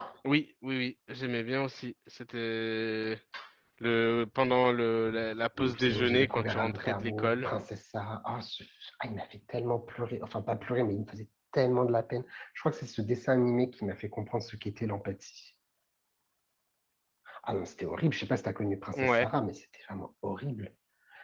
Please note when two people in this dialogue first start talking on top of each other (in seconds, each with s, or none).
5.6 s